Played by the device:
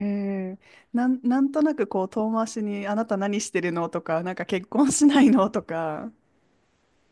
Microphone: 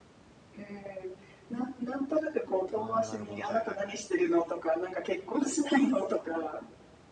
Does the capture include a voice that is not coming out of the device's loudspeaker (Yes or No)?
Yes